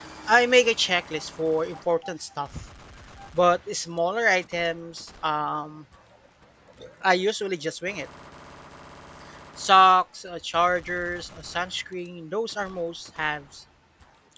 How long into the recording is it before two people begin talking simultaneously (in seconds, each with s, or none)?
none